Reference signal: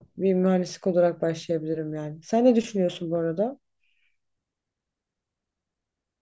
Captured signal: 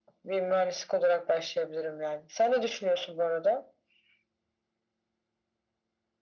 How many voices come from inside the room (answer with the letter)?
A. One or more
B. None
B